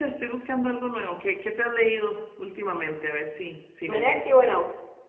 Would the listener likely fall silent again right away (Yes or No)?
No